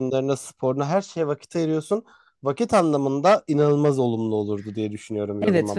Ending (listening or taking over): taking over